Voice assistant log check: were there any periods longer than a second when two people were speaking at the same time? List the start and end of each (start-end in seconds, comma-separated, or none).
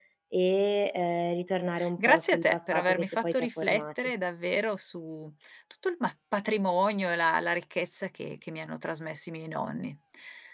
2.0-3.8